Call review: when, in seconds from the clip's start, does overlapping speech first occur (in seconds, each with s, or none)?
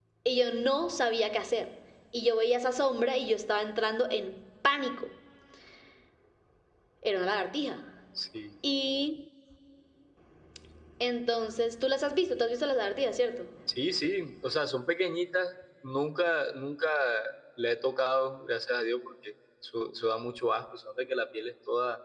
none